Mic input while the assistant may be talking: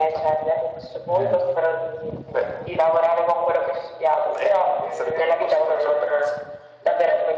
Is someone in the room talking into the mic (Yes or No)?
Yes